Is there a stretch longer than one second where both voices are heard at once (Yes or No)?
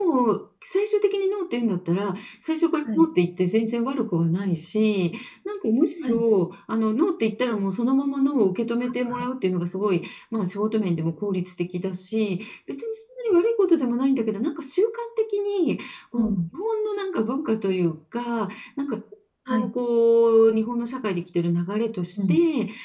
No